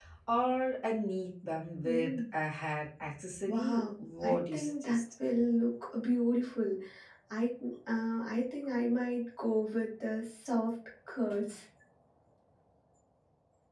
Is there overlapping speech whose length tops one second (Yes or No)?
Yes